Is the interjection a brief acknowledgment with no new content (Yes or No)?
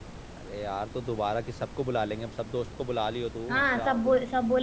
No